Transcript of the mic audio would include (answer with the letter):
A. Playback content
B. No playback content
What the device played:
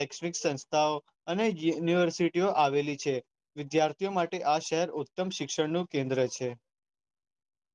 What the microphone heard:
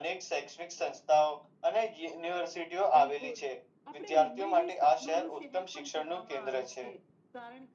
A